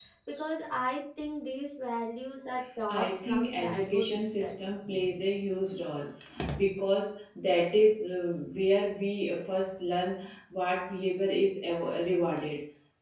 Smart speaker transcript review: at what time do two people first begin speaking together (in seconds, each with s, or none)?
2.9 s